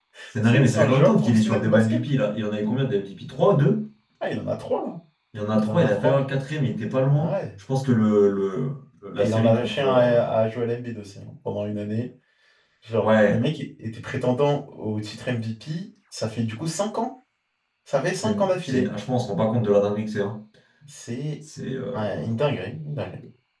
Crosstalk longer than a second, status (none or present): present